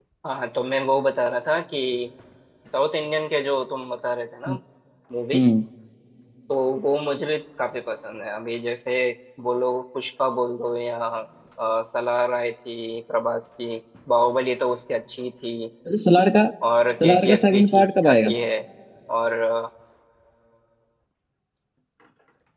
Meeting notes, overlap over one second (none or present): present